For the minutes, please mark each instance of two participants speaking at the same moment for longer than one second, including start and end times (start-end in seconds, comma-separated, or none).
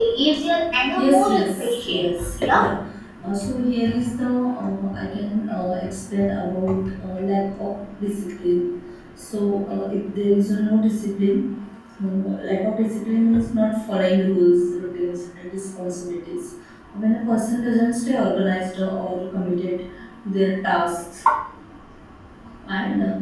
1.0-2.6